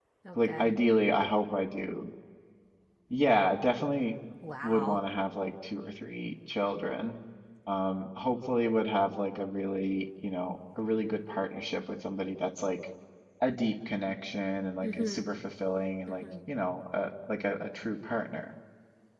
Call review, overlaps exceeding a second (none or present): none